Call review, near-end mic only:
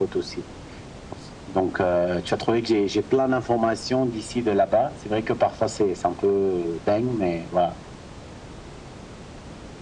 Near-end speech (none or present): none